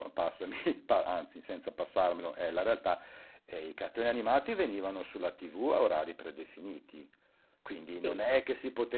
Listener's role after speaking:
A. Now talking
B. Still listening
B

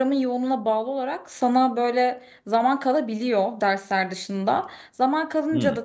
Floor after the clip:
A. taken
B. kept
B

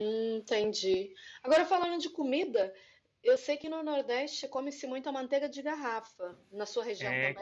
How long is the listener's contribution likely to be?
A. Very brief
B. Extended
B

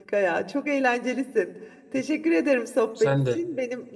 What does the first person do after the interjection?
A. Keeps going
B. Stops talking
A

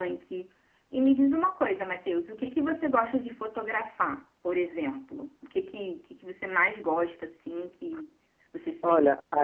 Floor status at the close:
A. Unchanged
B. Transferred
B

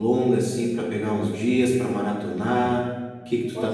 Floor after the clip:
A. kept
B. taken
B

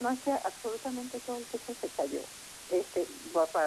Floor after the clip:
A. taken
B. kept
B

